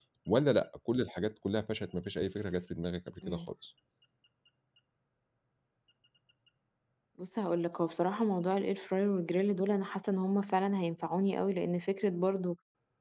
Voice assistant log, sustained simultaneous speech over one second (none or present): none